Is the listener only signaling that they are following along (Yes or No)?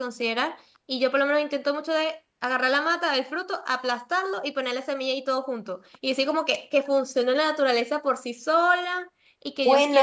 No